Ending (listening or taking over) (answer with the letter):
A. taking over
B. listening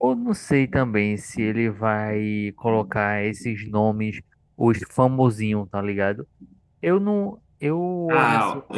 A